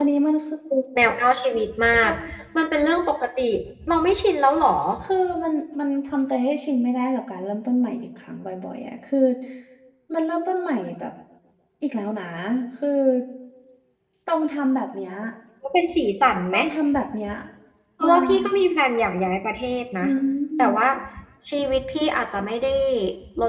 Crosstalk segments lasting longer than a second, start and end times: none

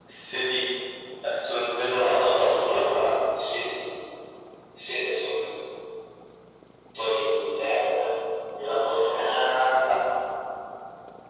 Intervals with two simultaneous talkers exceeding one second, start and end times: 1.9-3.1

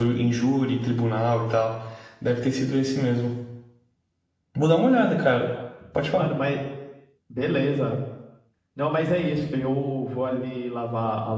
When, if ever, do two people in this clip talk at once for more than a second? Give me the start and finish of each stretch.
none

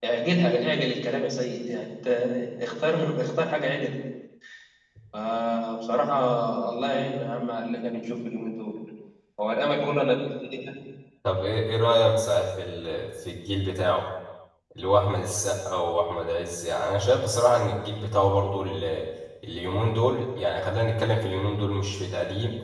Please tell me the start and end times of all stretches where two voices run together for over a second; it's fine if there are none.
none

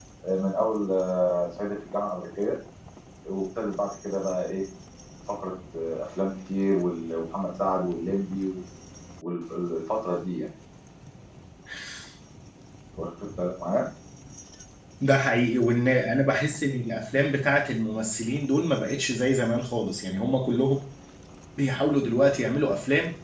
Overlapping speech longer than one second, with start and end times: none

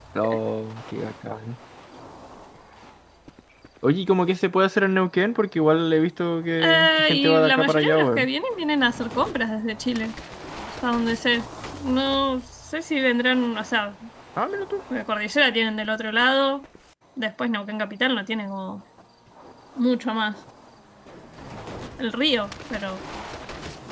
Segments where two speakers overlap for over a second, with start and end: 6.6-8.3

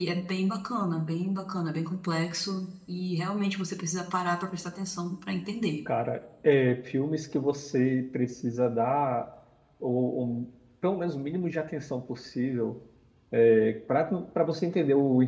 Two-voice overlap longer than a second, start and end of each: none

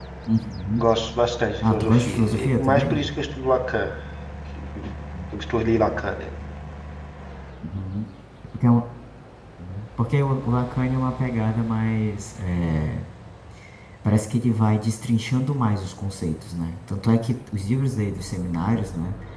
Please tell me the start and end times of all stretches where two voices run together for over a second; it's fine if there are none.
1.6-3.1

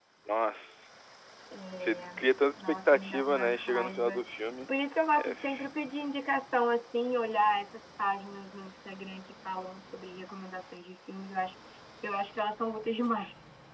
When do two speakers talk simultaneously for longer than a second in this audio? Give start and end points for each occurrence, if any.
2.7-4.2

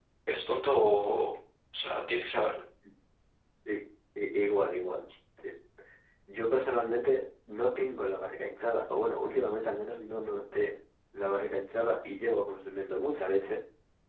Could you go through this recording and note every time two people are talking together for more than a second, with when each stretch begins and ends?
none

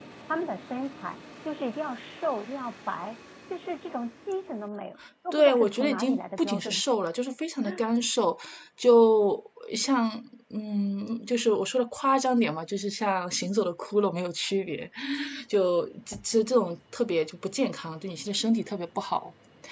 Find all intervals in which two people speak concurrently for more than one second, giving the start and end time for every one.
5.3-6.7

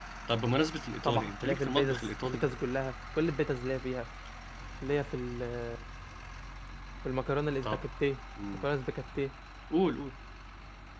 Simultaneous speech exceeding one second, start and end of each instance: 1.0-2.5

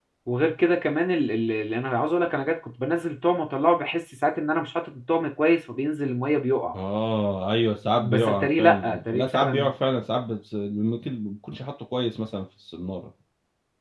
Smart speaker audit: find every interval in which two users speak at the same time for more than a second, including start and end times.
8.0-9.7

